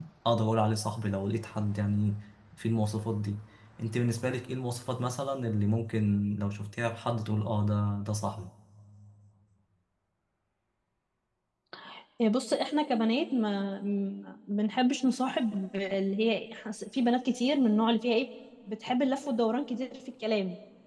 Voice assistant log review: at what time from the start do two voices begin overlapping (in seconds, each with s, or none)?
none